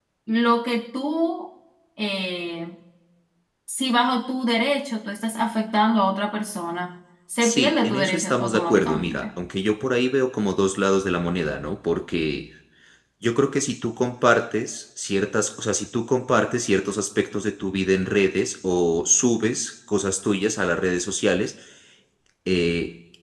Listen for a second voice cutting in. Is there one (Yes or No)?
Yes